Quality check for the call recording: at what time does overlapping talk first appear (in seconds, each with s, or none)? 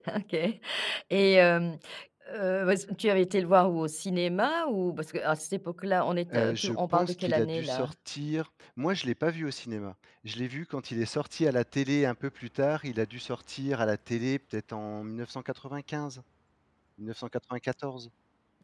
6.3 s